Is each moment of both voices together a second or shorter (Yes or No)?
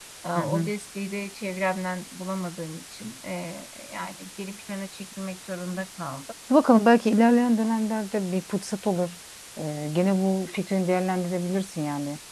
Yes